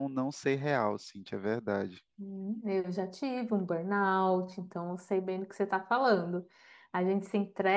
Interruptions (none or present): none